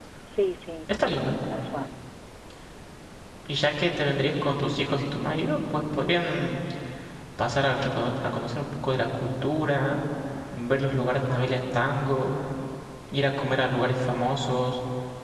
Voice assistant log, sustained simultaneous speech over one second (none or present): none